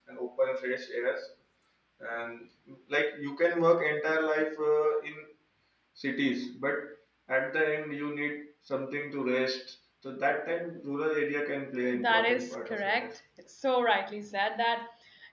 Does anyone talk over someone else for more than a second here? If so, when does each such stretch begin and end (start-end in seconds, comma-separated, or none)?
11.9-13.2